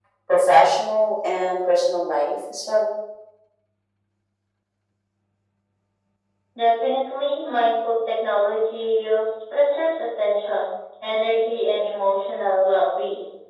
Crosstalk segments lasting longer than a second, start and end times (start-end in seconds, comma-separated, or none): none